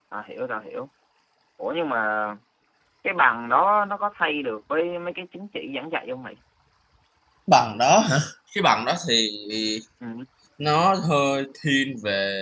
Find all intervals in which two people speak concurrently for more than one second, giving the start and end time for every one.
none

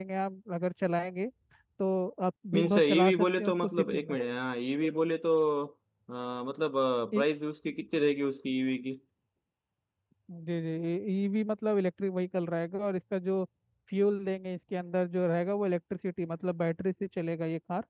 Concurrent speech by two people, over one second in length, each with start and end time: 2.5-4.2

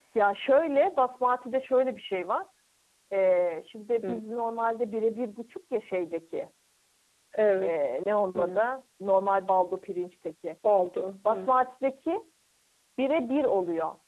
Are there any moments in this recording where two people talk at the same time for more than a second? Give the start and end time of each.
none

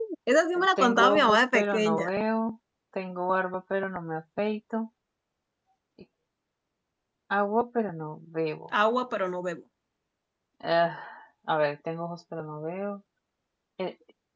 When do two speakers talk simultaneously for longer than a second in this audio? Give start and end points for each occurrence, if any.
0.8-2.1

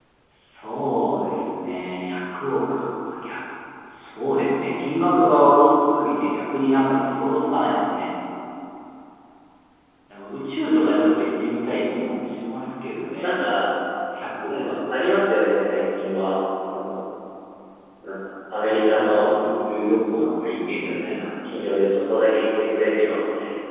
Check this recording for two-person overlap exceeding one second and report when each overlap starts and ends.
none

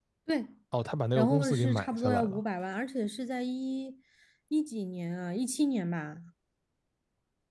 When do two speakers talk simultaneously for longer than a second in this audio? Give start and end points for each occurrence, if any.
1.1-2.4

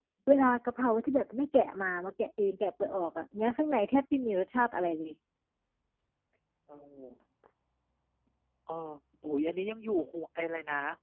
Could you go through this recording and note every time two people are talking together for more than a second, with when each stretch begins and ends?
none

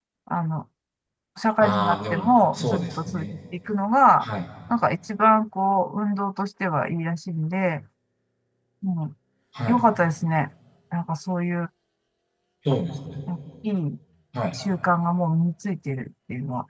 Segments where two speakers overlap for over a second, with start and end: 1.6-3.2

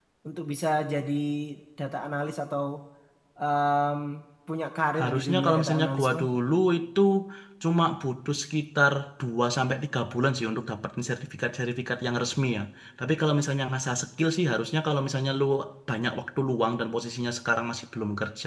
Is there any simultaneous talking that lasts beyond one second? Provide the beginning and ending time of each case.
5.0-6.2

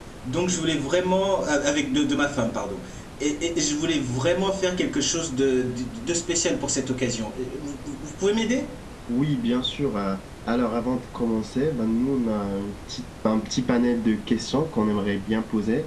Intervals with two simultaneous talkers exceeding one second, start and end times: none

